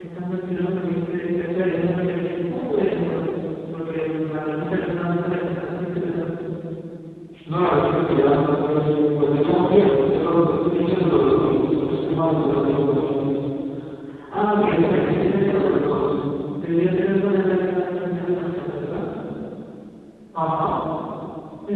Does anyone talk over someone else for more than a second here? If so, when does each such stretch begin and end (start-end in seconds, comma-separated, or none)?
14.6-15.8